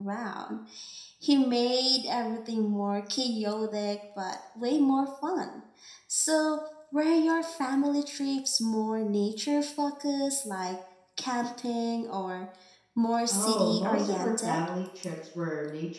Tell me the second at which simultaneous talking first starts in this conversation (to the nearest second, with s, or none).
13 s